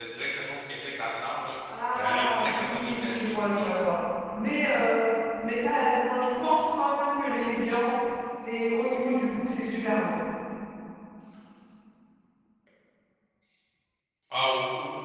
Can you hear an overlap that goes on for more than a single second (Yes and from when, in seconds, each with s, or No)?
Yes, from 1.9 s